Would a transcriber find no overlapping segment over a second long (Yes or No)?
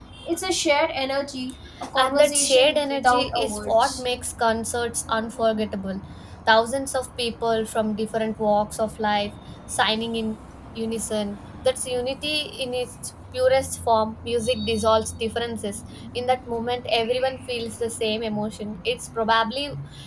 No